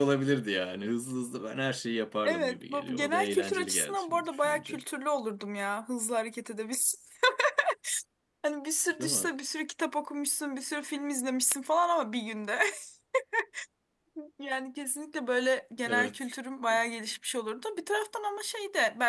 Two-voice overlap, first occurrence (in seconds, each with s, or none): 2.2 s